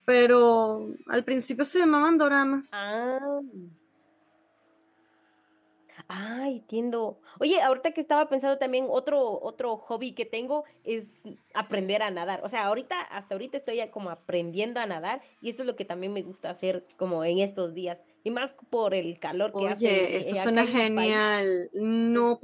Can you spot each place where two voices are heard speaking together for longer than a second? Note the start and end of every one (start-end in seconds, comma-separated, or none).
19.5-21.2